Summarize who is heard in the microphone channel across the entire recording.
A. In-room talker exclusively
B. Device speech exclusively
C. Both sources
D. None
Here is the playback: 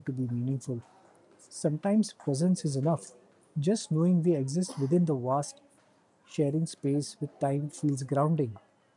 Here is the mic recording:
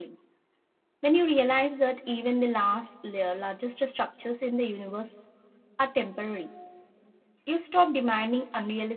A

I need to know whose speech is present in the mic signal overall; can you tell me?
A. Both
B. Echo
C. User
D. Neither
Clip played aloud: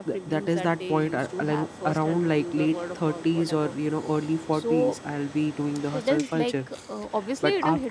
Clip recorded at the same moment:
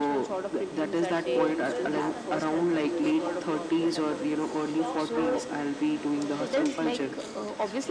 A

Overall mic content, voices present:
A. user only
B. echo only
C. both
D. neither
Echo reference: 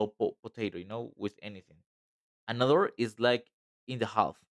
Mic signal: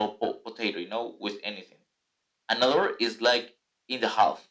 B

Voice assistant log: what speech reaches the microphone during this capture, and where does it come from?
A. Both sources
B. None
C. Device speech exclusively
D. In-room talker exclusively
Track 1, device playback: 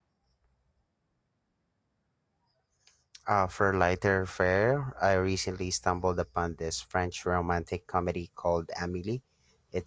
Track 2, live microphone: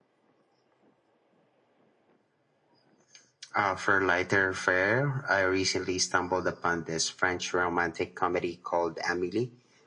C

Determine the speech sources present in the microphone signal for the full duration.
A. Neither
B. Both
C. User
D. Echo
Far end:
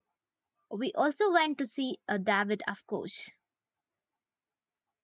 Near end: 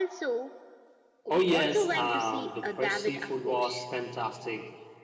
B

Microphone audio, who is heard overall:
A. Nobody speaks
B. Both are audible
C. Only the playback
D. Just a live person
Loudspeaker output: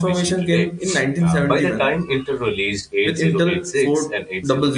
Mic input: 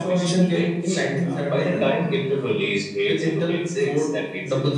C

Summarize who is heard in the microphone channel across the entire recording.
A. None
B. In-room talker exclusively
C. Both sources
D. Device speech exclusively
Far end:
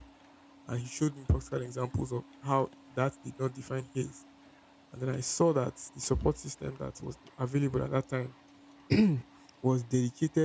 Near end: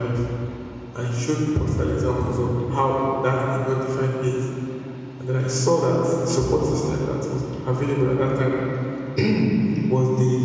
D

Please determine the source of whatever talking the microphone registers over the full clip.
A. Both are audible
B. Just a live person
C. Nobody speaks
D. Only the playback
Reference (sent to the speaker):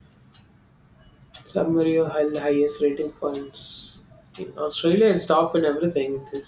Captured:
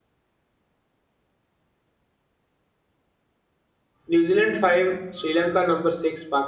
B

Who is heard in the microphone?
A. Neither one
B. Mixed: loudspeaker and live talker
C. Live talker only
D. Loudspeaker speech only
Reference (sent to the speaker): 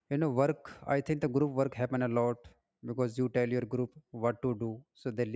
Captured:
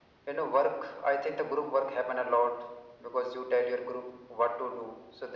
D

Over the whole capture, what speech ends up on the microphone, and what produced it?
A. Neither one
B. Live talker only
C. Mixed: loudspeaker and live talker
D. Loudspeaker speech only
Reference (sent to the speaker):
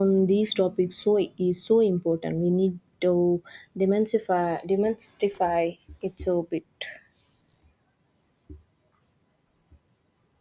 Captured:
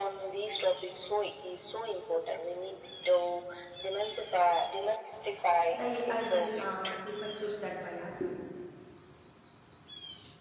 C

